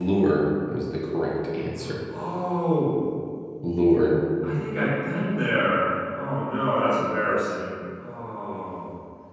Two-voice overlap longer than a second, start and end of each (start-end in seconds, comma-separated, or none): none